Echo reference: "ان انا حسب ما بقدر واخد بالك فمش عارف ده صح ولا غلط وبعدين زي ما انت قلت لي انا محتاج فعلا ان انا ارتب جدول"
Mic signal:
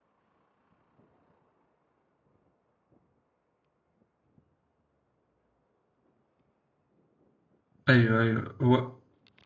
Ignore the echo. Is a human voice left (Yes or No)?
Yes